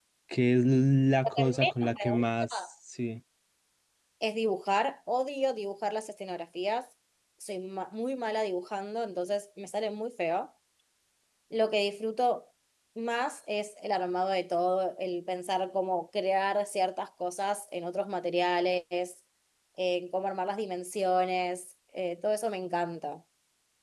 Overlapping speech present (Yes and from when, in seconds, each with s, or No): Yes, from 1.2 s